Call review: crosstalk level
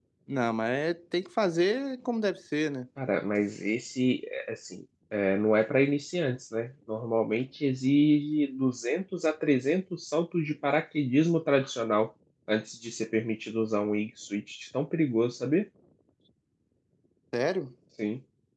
none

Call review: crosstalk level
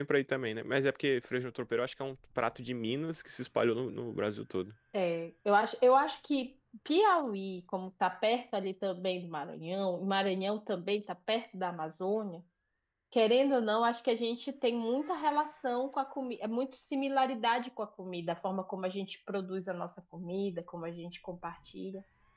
none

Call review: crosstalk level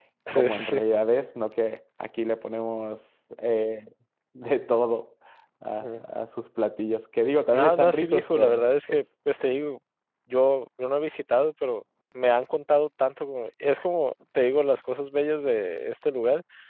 present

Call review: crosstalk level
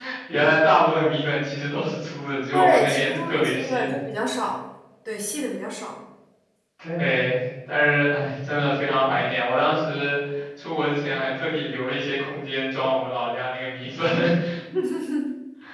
present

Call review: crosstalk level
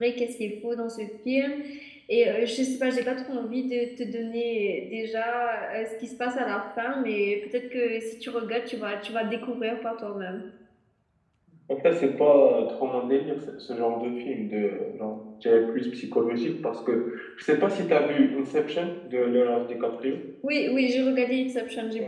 none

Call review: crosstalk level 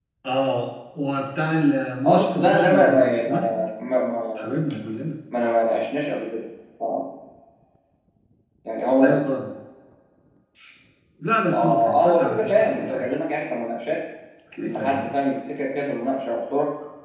present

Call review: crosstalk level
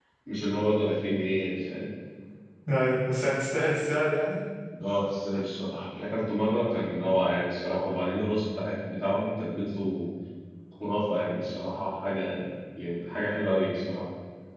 none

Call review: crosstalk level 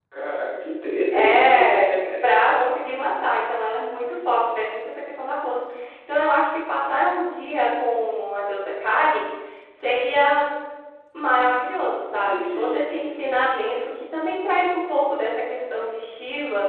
present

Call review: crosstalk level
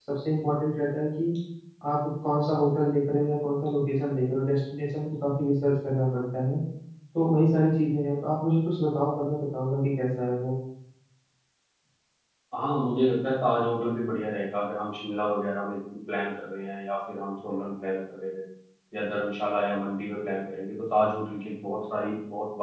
none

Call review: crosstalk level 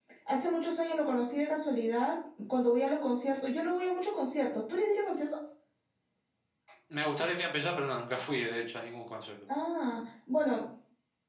none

